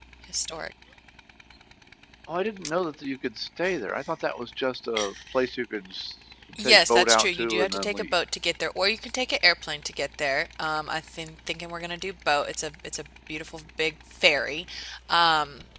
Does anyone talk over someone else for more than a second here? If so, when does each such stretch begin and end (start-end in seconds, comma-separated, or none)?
6.6-8.1